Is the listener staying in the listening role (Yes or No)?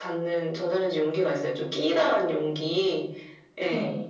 Yes